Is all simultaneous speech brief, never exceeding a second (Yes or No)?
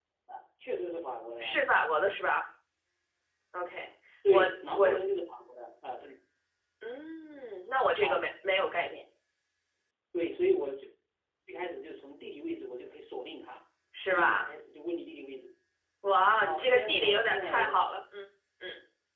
No